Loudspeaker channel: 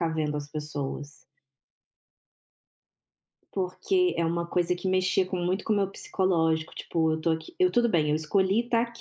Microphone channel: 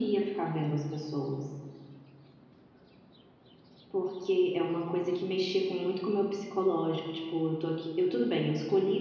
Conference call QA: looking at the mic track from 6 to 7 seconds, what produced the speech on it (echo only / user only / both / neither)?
echo only